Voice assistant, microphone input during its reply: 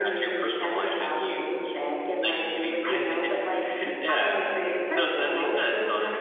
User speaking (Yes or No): Yes